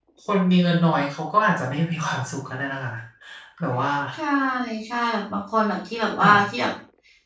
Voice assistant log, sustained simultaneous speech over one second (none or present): none